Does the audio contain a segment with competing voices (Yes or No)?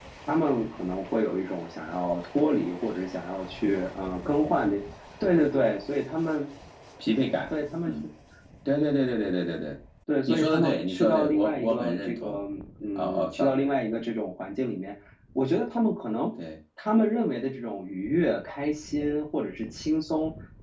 Yes